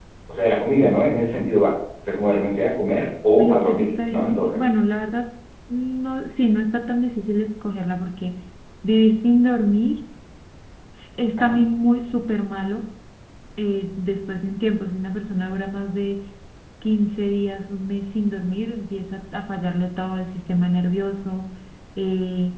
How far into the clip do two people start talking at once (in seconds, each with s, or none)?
3.3 s